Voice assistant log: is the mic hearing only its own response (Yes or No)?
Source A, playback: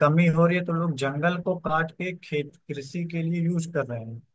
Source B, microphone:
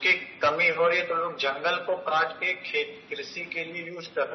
Yes